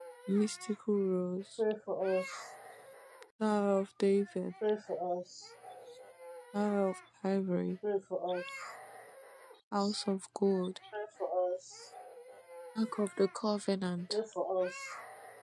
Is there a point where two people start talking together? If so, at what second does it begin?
none

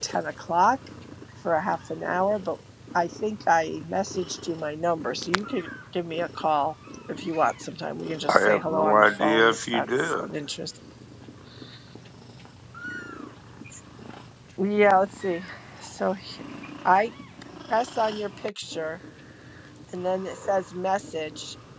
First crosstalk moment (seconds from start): 8.3 s

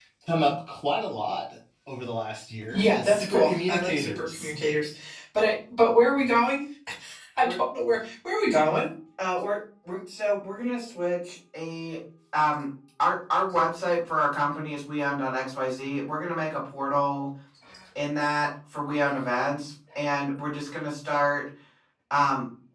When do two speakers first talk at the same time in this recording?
2.7 s

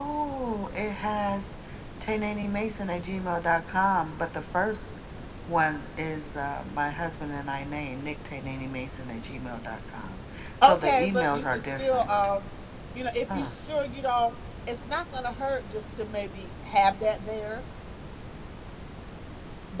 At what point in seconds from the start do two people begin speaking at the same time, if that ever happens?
10.6 s

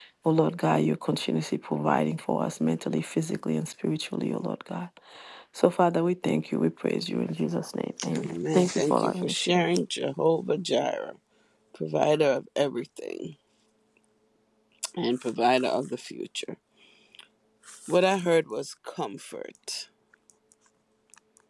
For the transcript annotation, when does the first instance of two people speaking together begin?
8.0 s

